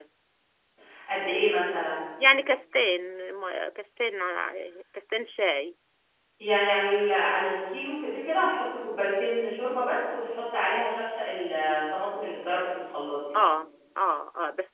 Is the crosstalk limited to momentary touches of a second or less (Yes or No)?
Yes